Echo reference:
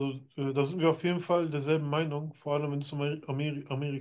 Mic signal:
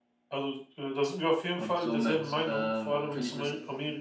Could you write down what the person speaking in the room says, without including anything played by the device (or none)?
und somit ähm, finde ich das,